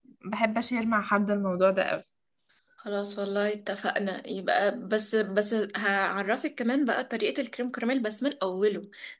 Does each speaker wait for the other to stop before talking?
Yes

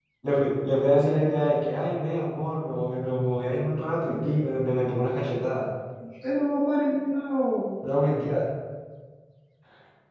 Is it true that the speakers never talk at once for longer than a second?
Yes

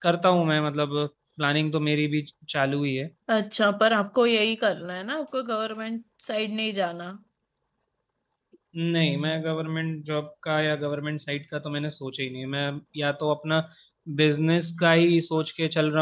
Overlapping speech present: No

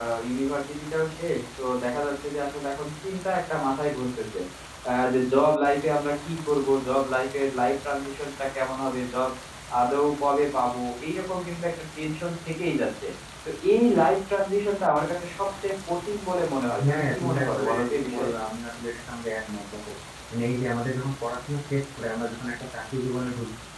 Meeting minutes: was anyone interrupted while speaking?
Yes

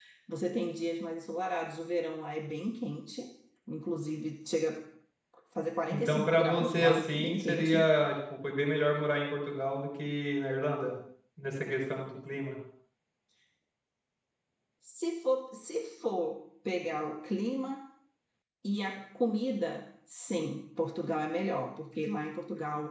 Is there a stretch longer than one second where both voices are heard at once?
Yes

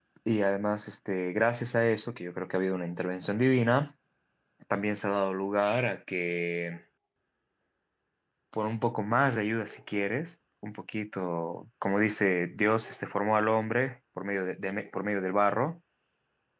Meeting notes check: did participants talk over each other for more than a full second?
No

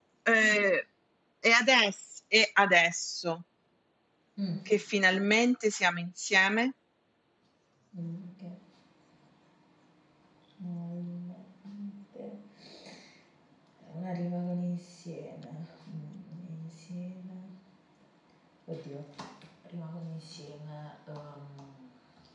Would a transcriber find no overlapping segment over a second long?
Yes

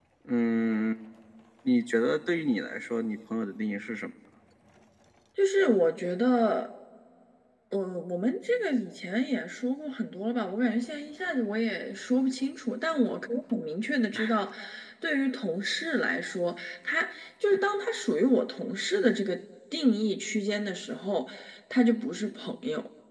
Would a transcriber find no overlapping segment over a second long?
Yes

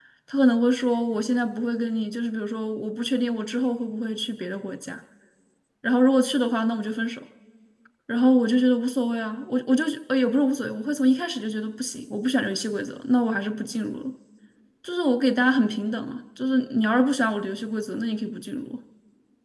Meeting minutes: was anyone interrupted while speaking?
No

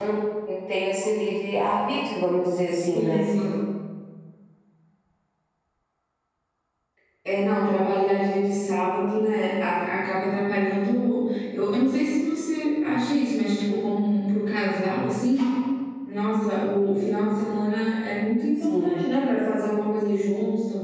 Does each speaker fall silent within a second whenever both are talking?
Yes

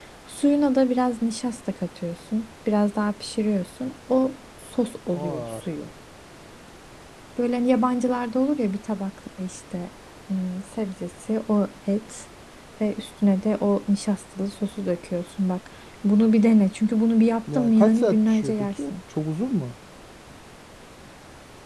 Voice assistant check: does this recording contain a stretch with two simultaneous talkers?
Yes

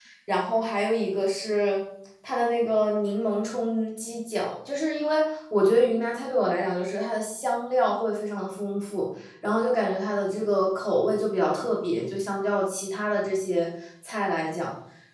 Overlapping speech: No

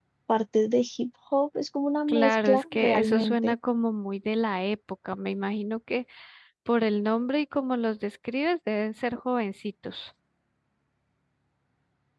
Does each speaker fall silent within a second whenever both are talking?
No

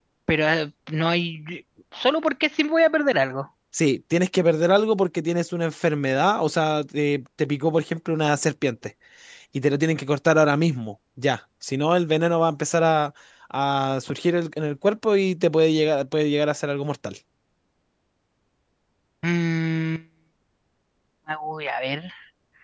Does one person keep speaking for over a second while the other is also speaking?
No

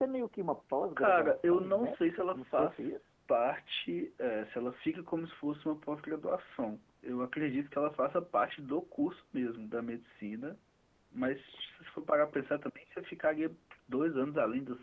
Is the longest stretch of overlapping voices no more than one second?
No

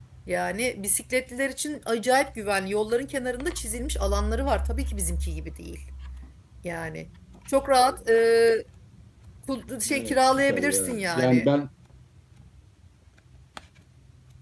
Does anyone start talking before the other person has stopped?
Yes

